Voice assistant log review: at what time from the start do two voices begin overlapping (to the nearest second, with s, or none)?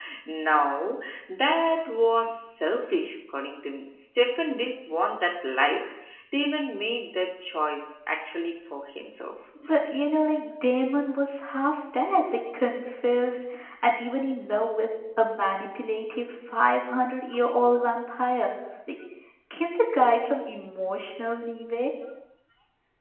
none